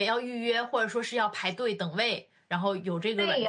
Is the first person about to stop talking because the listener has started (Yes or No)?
Yes